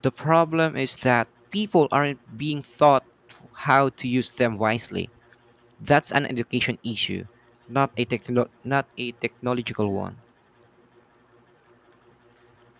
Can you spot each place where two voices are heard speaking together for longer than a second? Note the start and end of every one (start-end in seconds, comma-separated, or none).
none